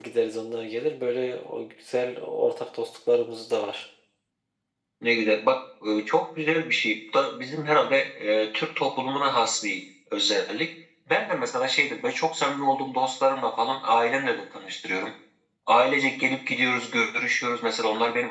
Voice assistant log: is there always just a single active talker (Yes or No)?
Yes